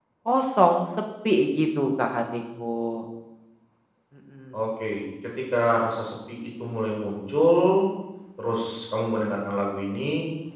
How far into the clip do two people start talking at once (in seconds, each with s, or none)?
none